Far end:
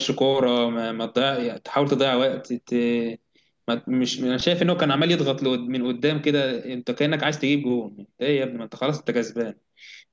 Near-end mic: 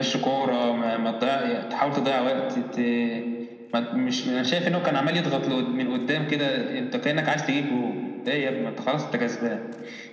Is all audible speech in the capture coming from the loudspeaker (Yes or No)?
Yes